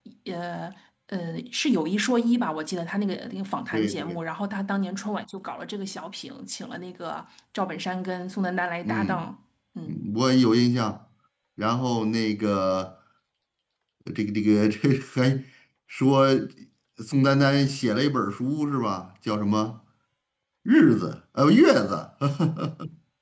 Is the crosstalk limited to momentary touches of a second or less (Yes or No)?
Yes